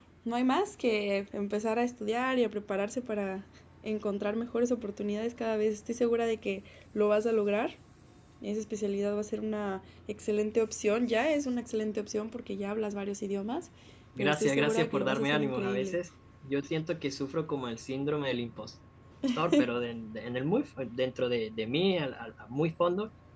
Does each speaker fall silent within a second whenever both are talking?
No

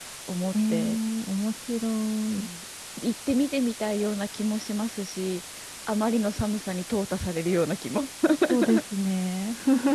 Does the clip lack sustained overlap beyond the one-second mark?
Yes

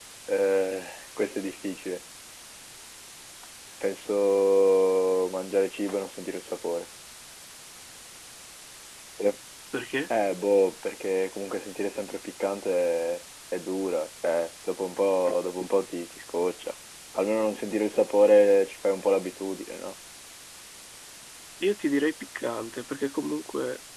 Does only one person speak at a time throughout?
Yes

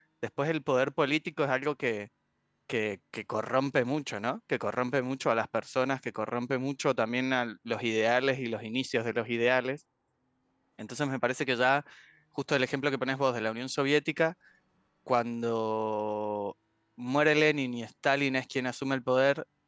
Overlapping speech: No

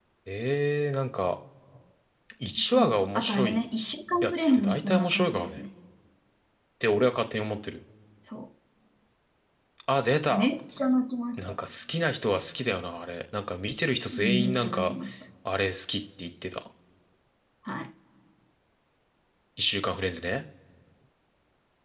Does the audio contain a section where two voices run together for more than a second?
Yes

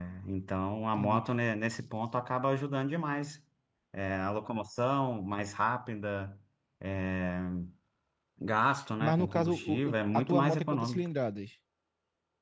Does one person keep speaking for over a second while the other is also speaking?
Yes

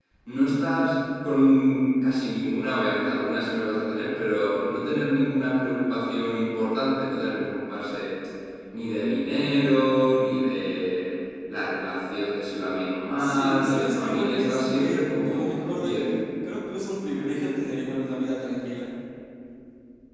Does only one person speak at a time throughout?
No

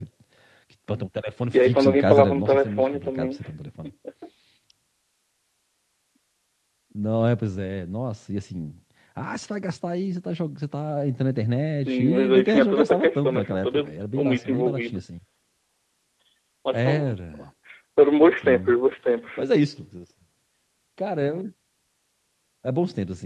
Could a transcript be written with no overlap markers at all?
No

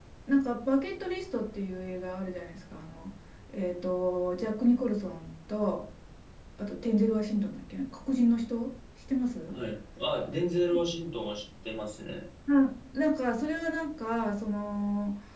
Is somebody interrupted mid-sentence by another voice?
No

